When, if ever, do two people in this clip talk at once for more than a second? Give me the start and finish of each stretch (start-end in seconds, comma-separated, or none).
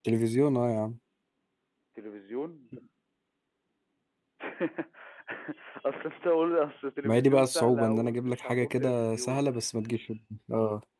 7.0-9.4